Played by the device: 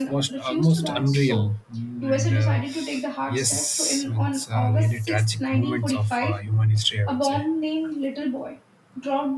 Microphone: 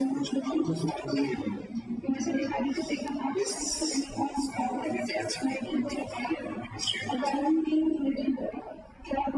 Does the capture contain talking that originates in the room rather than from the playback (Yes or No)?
No